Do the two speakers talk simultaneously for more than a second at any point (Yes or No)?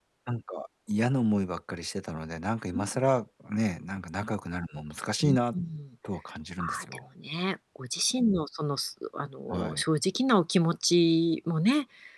No